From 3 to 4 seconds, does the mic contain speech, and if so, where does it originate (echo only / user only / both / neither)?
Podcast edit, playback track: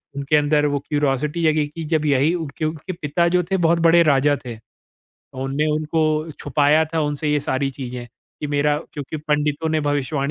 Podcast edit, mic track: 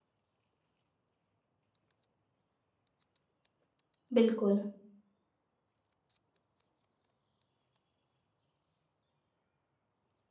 neither